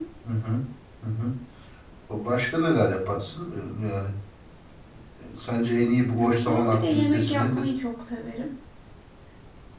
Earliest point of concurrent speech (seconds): 6.2 s

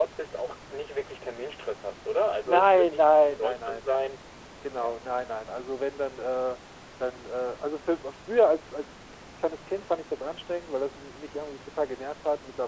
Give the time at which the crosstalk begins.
2.5 s

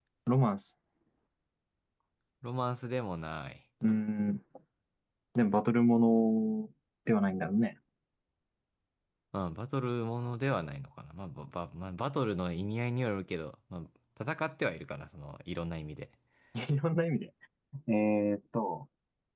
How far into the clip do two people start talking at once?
none

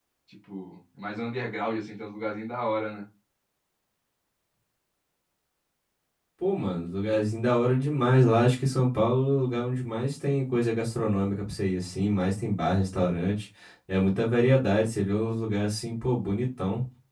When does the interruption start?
none

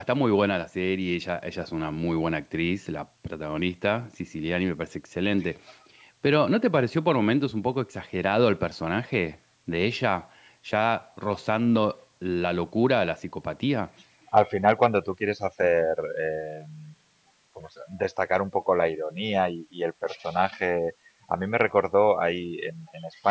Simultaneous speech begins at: none

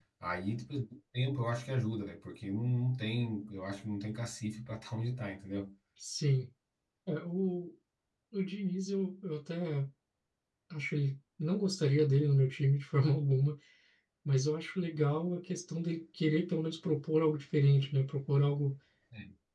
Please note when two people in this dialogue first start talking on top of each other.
none

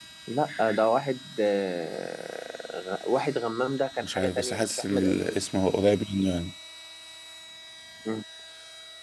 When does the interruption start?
4.0 s

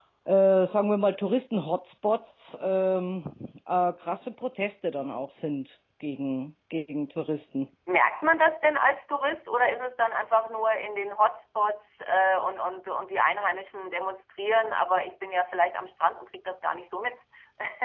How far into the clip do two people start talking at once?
none

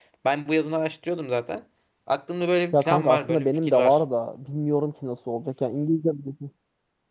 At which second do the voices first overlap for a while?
2.7 s

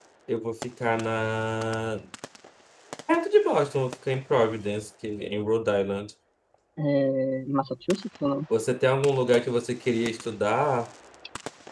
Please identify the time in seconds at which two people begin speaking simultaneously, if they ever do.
none

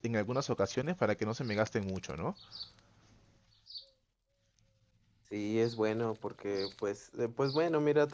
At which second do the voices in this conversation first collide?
none

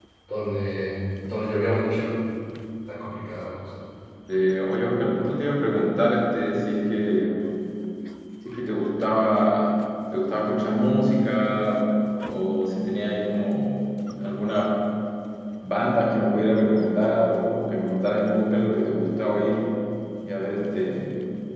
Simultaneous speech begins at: none

